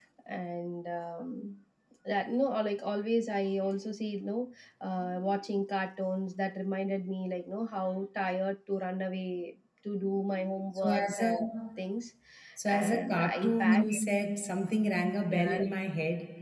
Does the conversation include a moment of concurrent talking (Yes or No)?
Yes